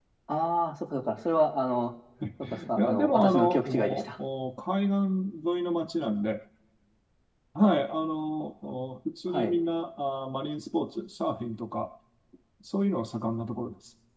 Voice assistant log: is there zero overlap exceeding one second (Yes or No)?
No